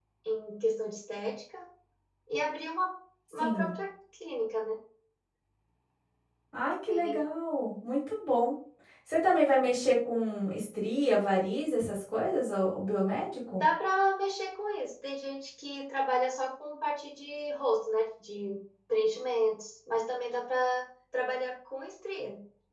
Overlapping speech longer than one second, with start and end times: none

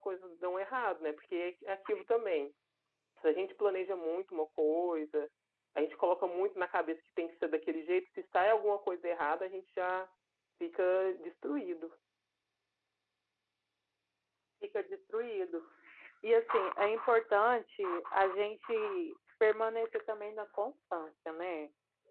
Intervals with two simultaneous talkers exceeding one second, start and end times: none

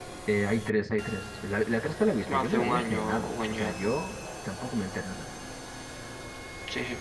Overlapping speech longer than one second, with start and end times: 2.3-3.9

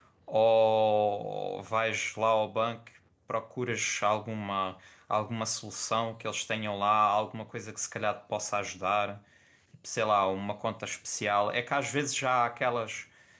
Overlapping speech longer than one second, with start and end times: none

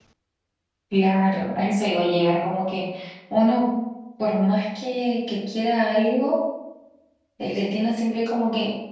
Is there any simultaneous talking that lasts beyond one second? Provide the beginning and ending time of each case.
none

